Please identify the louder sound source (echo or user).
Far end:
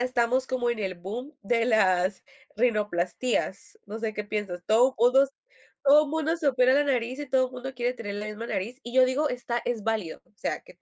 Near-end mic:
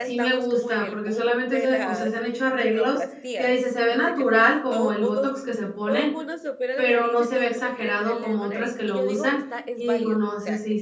user